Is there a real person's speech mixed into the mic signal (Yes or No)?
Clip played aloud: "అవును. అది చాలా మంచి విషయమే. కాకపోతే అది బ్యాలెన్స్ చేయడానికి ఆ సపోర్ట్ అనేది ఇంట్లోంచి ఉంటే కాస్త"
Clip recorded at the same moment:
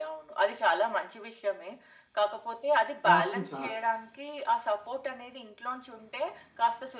Yes